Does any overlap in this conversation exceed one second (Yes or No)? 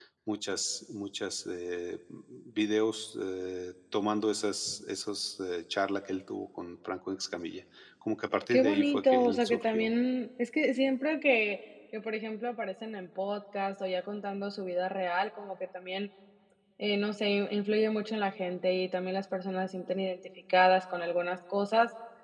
Yes